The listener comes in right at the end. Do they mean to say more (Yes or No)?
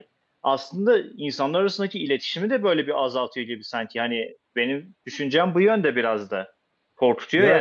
Yes